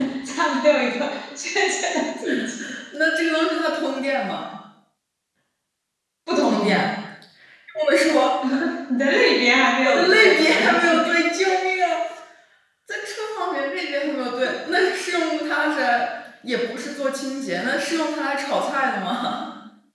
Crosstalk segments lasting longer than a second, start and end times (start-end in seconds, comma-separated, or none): 9.8-11.2